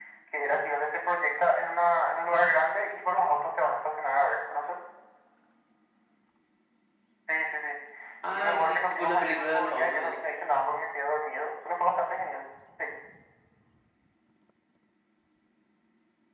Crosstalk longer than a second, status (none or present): present